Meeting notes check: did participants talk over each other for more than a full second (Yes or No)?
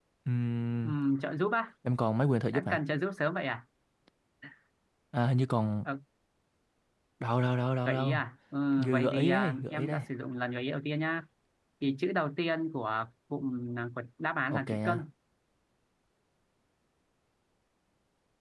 Yes